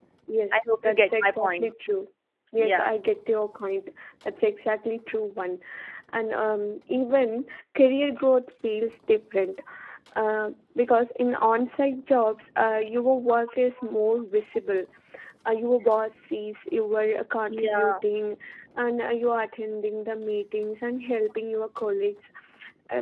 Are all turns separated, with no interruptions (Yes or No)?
No